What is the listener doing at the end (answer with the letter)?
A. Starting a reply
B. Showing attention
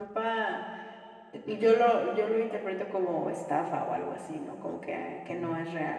A